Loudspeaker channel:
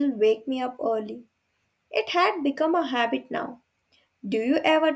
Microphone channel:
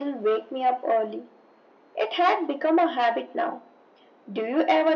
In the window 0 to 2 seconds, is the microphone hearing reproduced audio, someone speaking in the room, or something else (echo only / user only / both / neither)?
echo only